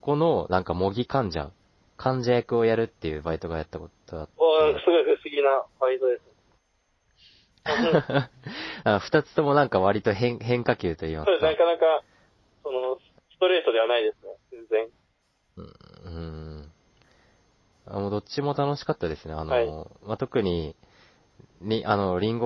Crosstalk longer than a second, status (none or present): none